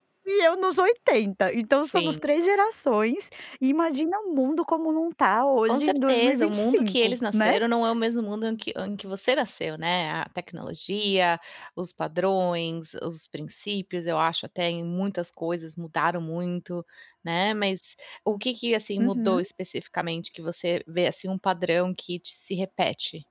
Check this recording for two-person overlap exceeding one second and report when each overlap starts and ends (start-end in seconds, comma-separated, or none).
5.7-7.5